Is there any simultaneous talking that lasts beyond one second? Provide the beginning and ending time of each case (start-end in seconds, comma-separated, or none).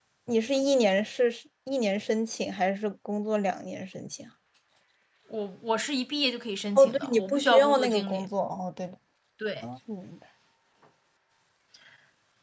6.8-8.2